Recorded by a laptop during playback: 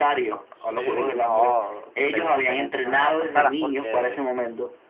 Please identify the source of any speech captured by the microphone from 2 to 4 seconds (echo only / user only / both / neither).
both